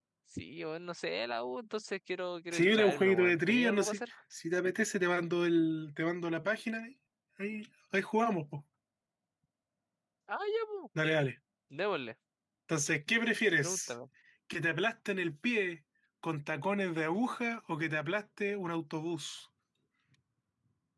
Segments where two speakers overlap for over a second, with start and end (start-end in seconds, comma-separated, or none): 2.5-4.0